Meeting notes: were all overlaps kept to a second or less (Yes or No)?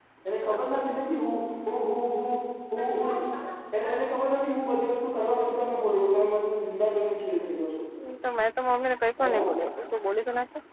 Yes